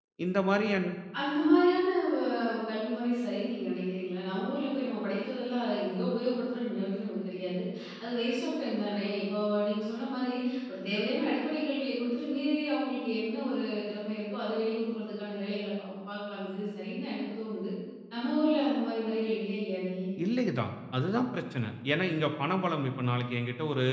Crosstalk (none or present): none